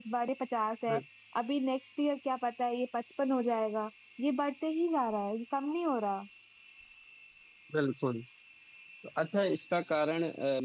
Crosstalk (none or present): none